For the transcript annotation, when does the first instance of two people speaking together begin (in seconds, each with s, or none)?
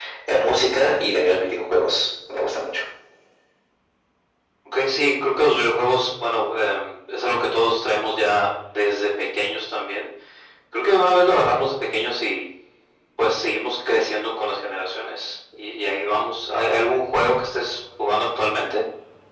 none